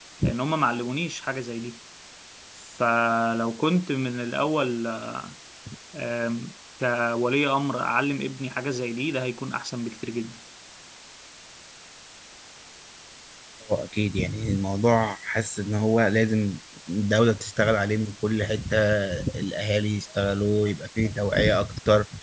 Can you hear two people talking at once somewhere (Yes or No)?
No